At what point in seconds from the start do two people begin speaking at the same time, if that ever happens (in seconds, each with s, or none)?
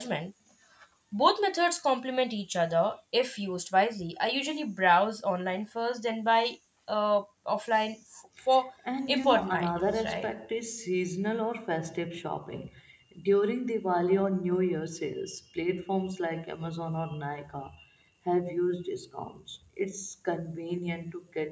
9.1 s